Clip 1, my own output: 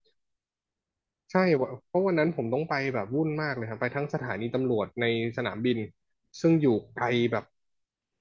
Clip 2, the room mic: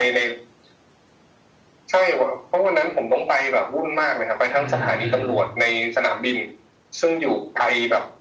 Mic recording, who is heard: both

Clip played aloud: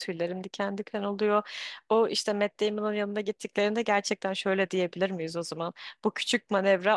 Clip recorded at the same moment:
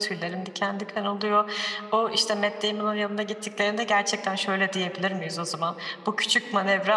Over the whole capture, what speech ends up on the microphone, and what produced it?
echo only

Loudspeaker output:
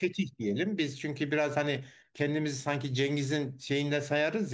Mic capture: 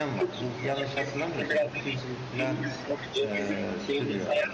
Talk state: both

